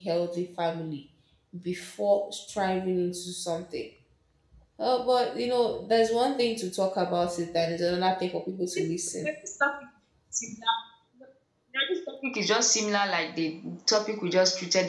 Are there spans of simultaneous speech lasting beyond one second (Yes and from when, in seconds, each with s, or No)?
No